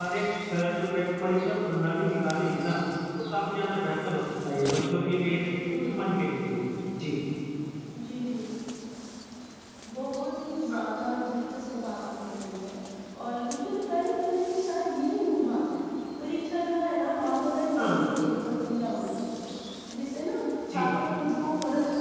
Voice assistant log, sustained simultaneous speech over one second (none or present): none